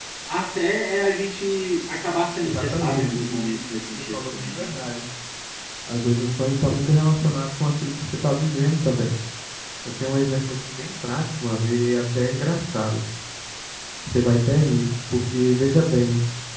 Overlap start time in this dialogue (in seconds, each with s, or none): 2.4 s